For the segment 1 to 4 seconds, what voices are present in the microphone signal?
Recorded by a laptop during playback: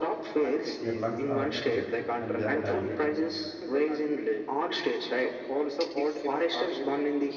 both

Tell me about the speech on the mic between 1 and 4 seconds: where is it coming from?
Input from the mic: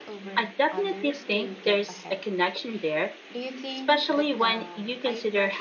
both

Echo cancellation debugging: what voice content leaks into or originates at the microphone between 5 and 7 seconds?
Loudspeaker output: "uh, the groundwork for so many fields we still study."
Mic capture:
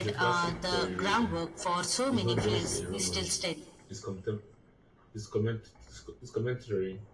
user only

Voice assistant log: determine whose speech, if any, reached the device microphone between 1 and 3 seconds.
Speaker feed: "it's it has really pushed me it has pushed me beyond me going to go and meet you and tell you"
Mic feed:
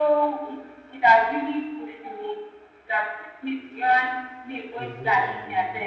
echo only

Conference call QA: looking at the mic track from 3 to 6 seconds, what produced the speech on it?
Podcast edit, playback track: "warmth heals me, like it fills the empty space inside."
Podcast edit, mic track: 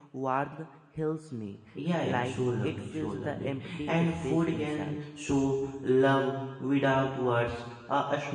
both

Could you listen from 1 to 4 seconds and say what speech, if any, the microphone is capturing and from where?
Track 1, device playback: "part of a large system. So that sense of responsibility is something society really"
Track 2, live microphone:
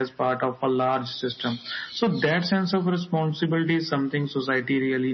echo only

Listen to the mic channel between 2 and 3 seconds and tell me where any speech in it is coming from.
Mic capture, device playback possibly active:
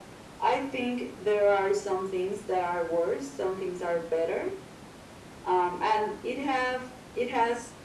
echo only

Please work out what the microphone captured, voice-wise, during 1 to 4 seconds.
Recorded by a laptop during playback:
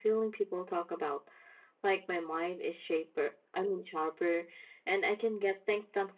echo only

